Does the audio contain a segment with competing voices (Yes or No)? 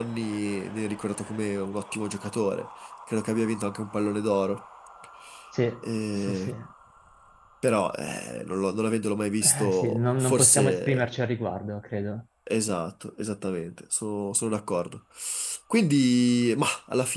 Yes